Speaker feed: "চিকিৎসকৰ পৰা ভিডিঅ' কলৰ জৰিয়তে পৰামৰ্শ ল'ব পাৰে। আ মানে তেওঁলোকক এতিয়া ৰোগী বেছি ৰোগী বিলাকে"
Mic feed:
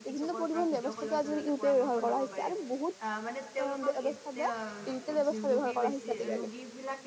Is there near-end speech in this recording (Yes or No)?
Yes